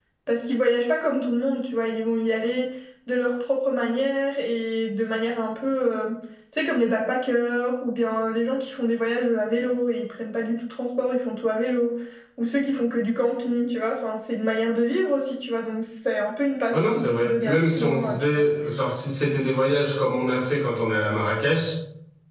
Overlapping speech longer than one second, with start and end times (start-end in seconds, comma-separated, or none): 16.7-18.5